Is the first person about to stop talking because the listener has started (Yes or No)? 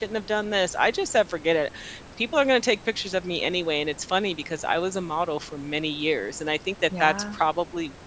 No